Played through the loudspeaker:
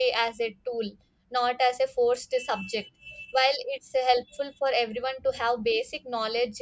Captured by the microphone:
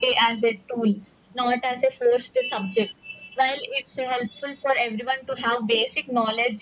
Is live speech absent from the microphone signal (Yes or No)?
Yes